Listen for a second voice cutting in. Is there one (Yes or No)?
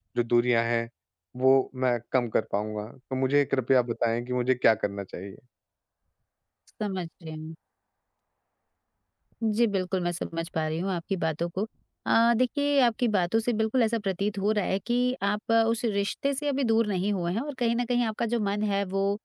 No